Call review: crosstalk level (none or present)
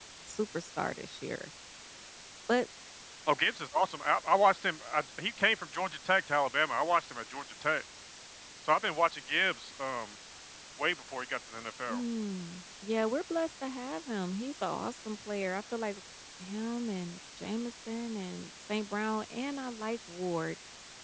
none